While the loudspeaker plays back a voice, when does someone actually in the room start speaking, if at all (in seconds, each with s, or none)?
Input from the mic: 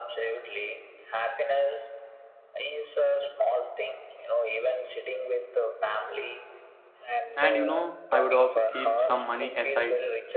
7.4 s